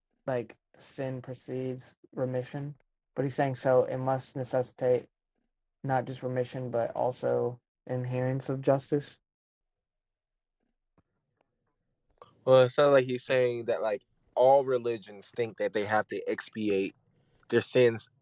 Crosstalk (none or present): none